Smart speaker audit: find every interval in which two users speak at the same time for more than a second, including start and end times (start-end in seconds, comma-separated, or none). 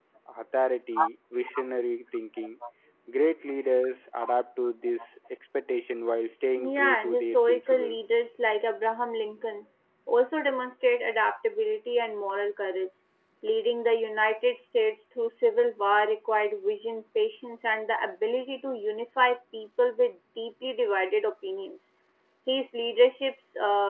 6.6-8.0